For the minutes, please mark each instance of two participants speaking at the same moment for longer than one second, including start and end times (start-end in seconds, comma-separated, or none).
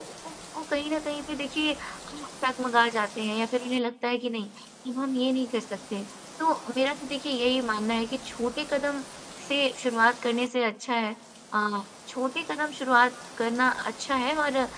none